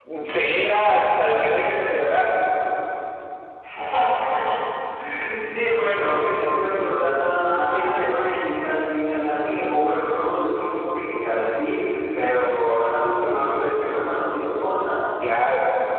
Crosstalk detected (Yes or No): No